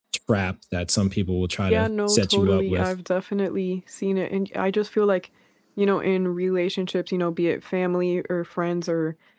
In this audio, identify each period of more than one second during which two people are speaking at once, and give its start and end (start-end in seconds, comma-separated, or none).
1.7-2.9